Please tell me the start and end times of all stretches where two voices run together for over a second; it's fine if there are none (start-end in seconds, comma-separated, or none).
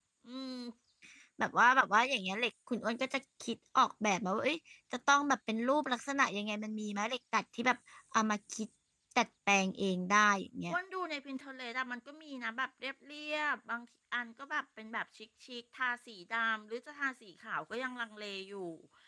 none